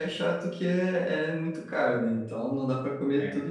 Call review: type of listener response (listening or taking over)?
listening